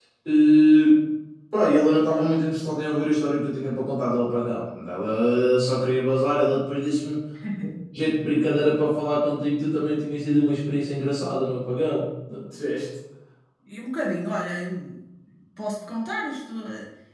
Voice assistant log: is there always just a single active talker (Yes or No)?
Yes